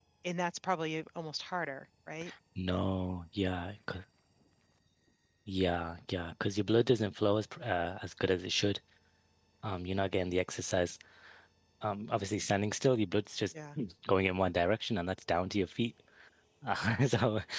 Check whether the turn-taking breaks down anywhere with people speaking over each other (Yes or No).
No